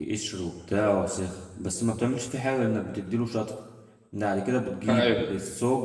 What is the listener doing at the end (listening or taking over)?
listening